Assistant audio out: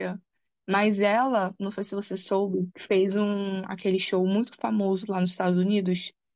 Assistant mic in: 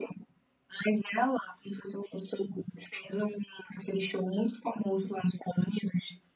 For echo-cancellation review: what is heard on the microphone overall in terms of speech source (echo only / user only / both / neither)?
echo only